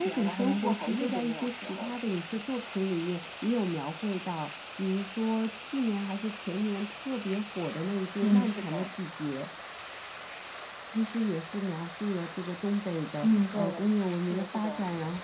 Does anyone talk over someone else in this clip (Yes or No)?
Yes